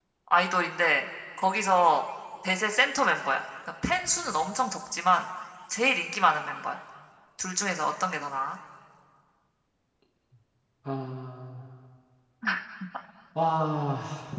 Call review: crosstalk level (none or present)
none